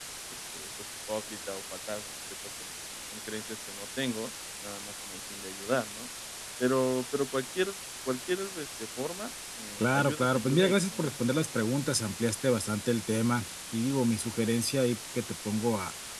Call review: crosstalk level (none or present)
present